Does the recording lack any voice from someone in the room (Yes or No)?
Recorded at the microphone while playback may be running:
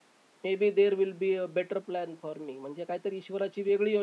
No